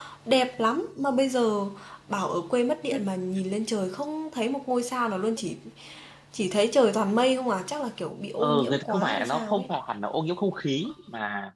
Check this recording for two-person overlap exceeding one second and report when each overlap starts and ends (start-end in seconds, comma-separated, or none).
8.4-9.6